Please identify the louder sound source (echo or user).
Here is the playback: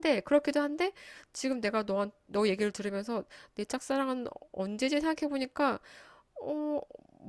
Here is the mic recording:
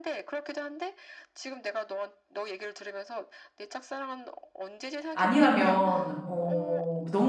user